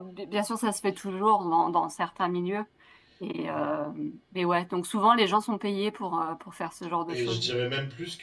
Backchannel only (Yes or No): No